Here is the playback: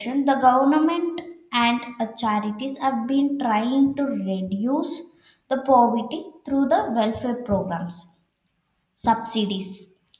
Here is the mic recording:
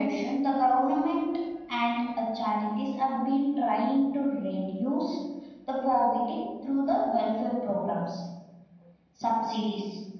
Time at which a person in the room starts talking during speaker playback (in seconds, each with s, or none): none